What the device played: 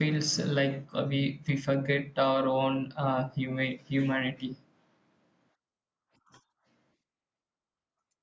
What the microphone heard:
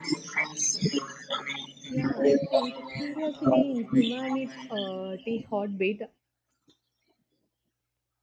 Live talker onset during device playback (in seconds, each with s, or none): 1.9 s